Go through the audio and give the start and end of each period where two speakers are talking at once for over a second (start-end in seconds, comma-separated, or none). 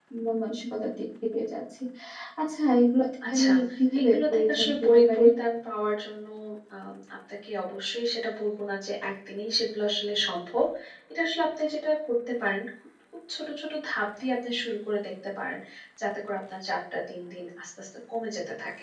4.0-5.2